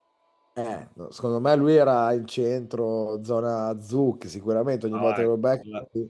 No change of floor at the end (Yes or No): No